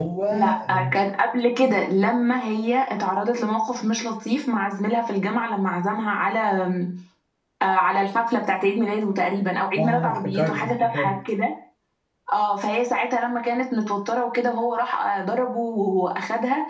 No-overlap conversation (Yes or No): No